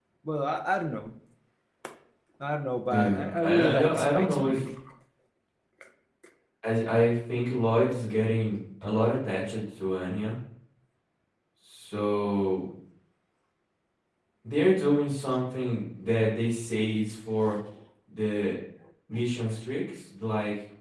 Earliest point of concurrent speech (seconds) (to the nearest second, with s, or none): 3 s